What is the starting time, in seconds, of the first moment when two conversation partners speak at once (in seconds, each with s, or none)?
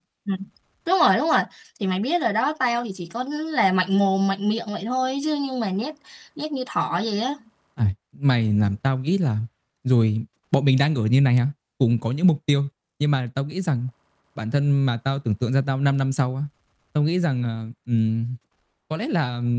none